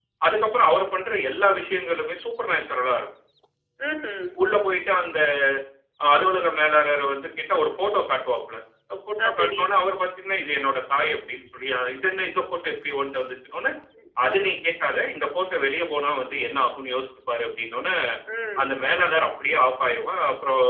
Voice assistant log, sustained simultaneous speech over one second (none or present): none